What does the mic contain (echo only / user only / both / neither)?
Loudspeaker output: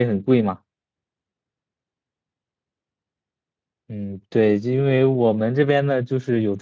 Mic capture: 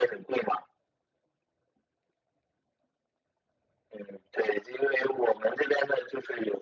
echo only